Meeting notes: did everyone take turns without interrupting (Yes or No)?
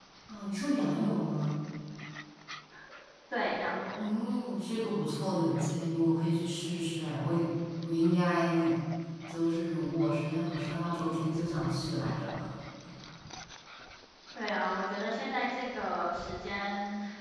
Yes